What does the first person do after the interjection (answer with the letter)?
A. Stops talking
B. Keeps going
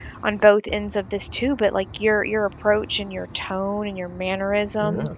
A